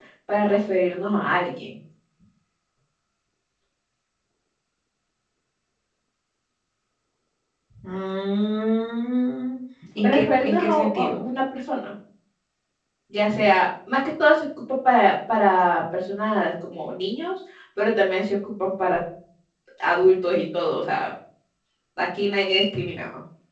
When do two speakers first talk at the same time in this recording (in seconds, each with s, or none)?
10.0 s